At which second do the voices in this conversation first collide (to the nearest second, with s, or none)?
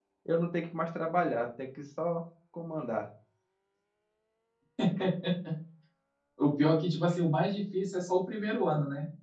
none